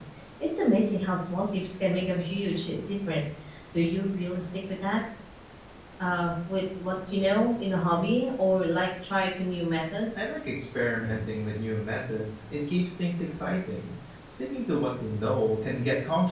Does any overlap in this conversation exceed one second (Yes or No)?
No